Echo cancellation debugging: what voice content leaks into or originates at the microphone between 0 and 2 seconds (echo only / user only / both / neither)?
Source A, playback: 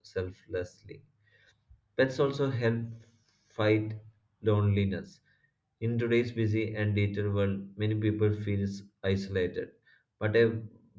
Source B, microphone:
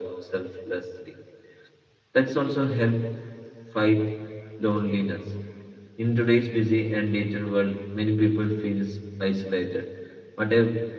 echo only